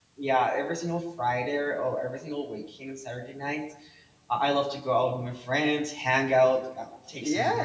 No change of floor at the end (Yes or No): No